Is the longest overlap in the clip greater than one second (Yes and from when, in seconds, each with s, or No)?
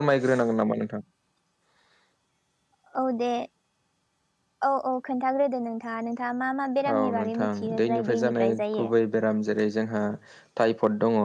Yes, from 6.8 s